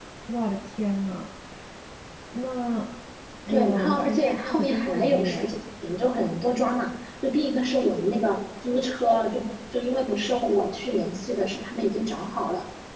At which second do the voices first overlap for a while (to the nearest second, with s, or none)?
3 s